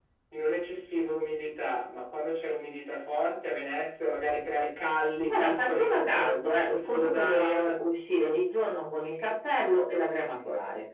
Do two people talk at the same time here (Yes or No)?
Yes